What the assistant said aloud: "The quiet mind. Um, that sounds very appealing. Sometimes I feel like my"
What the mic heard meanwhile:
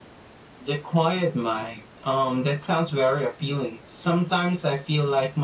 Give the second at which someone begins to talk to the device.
none

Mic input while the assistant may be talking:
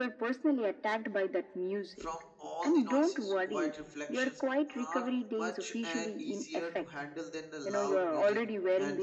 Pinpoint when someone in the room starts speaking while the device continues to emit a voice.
2 s

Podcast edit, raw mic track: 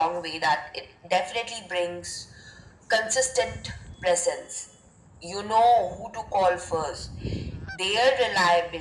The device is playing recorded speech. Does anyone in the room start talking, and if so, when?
none

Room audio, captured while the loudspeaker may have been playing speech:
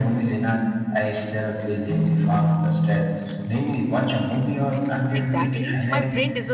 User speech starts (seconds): 5 s

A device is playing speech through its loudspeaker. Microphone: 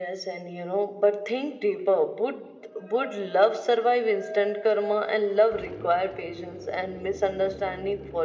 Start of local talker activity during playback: none

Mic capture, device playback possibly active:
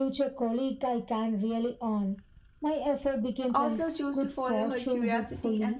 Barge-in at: 4 s

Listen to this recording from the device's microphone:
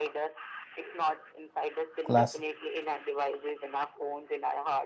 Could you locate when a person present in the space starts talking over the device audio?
2 s

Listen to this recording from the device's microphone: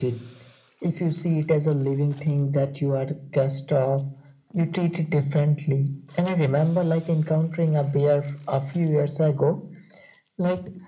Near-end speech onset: none

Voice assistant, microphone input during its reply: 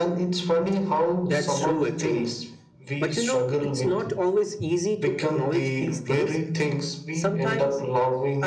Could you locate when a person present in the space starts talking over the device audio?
none

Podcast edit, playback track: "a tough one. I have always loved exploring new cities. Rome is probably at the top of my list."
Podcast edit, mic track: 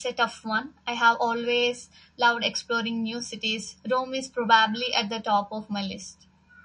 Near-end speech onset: none

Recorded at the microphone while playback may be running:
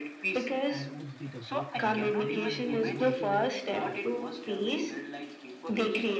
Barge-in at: 1 s

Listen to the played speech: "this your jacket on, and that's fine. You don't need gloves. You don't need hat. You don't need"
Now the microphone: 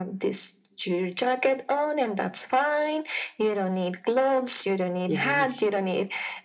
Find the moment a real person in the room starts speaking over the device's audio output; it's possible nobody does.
5 s

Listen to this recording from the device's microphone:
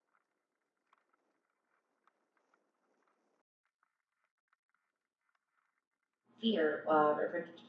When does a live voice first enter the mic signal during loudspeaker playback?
6 s

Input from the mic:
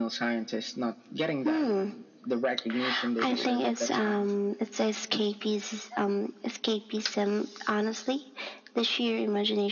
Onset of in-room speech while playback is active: none

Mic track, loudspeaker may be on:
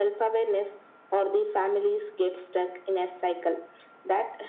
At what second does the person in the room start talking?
none

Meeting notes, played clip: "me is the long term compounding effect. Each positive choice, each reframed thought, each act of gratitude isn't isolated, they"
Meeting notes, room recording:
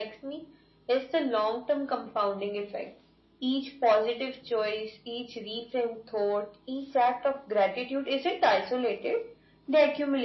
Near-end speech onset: none

